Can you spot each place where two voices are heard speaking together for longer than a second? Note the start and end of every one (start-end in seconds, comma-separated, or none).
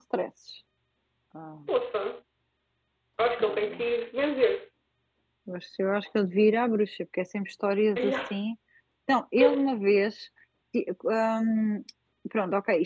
none